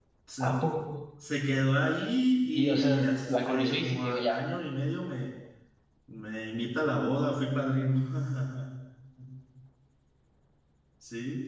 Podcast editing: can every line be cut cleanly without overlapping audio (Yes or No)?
No